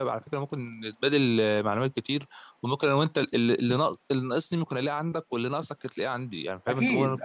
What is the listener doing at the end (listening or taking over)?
taking over